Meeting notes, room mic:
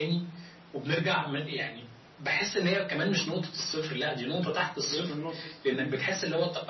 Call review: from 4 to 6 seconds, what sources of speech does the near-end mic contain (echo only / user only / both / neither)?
both